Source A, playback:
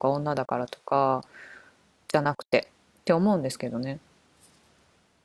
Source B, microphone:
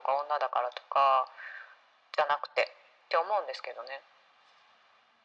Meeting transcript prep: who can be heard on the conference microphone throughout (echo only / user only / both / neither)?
echo only